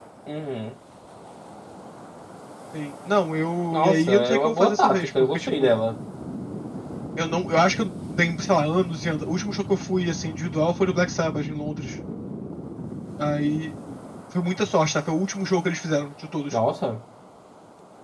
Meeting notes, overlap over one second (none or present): present